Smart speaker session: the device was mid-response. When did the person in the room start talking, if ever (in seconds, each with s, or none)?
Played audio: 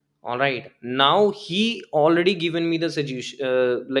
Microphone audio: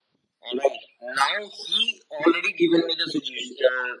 none